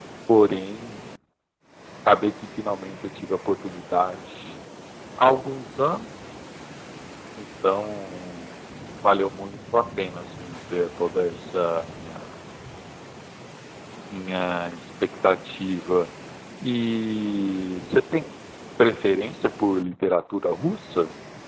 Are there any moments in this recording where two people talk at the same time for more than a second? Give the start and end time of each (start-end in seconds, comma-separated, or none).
none